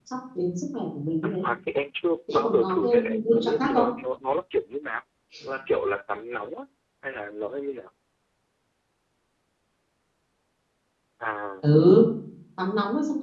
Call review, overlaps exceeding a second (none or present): present